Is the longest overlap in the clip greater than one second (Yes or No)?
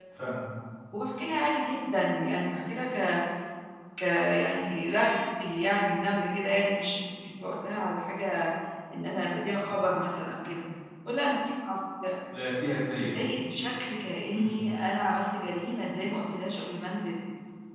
No